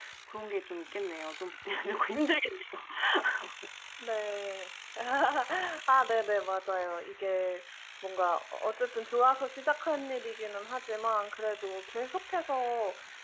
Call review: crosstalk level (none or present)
none